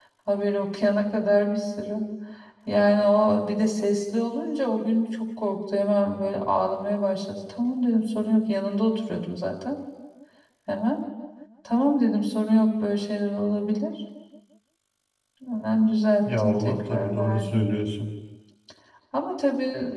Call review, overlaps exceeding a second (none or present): present